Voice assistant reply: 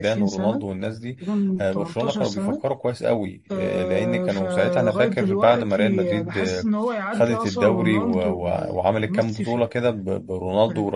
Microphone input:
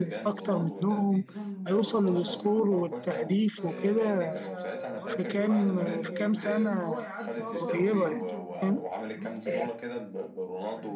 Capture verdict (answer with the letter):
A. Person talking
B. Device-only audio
A